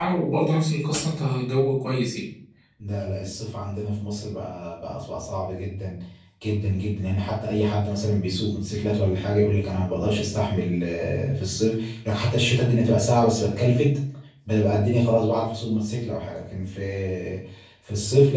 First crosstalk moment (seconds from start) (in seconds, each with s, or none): none